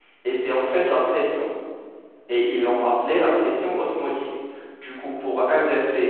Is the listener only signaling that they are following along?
Yes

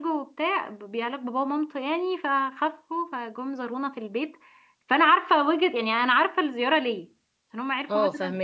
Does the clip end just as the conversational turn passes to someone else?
No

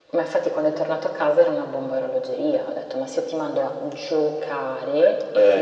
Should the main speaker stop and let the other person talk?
No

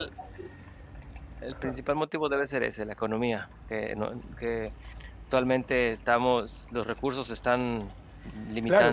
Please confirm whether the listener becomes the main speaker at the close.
Yes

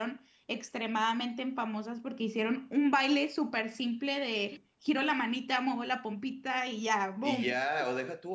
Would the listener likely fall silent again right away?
No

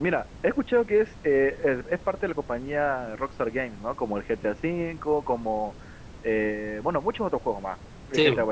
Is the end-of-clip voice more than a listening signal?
No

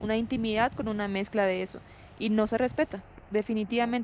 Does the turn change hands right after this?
No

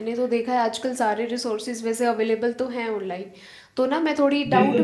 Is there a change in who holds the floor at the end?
Yes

